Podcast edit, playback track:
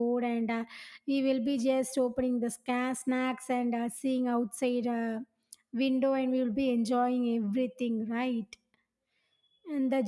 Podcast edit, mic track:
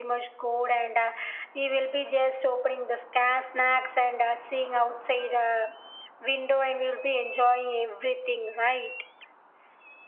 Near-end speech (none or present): none